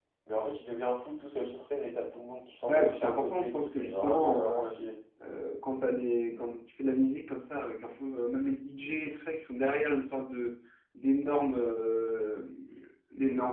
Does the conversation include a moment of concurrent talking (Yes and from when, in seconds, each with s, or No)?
Yes, from 2.7 s